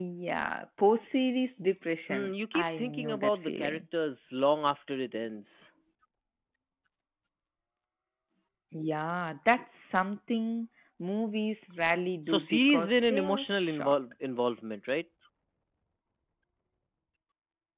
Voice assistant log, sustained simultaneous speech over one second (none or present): present